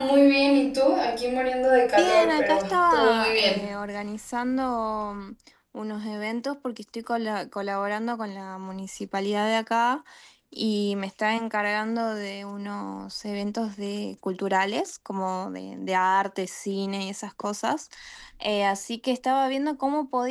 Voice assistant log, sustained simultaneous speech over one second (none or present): present